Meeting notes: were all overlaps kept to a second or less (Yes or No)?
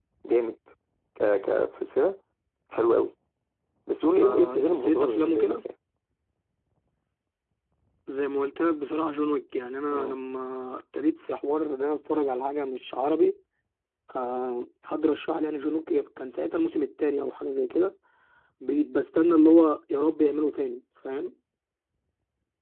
No